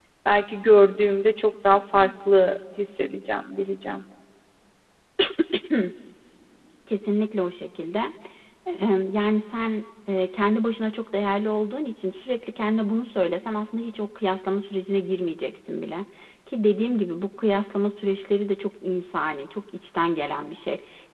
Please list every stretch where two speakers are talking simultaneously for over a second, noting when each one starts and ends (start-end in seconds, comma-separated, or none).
none